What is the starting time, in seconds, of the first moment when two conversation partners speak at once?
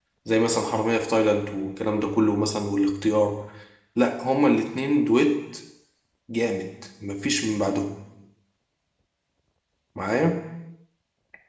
none

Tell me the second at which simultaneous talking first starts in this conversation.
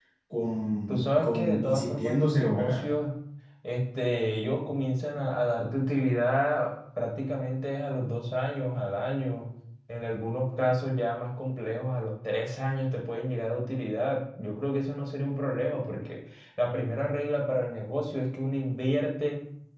0.9 s

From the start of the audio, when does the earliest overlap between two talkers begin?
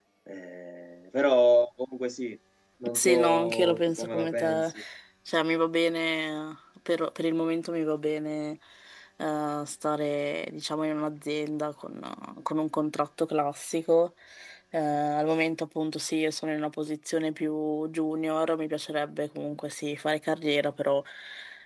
2.9 s

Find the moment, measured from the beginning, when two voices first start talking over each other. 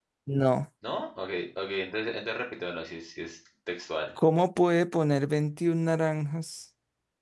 none

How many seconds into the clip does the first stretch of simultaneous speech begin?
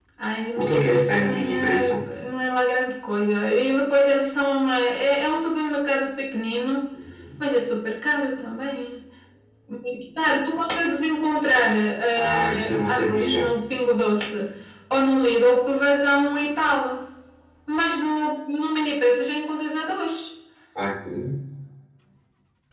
0.6 s

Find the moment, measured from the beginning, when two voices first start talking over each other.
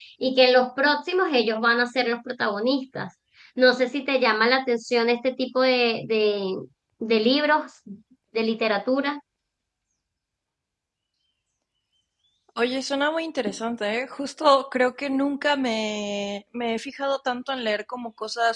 none

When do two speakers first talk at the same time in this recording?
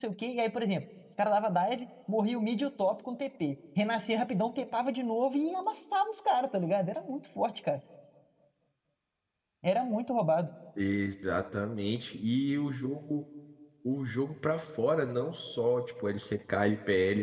none

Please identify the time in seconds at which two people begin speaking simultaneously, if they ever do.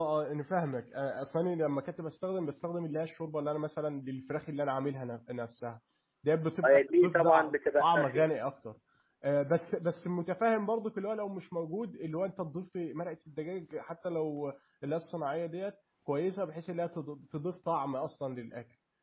6.6 s

